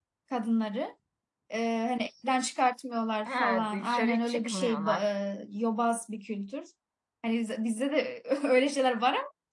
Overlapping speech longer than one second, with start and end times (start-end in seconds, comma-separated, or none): 3.2-5.0